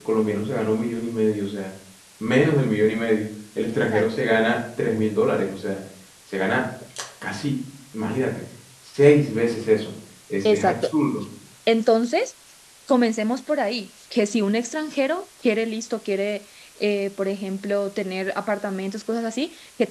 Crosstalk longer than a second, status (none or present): none